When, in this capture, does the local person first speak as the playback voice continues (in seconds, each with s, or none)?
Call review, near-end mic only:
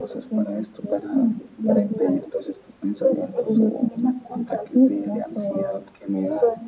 none